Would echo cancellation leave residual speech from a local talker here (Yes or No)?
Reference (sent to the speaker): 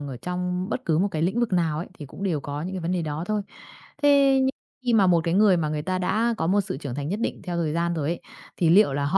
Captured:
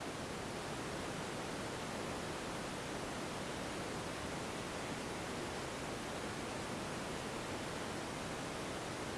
No